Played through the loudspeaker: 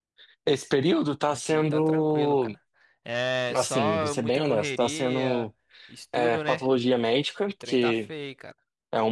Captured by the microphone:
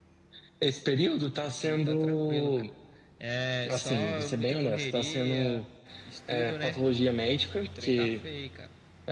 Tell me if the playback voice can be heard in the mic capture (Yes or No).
Yes